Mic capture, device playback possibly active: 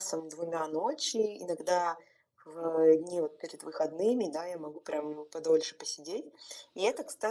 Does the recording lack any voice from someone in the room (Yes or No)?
Yes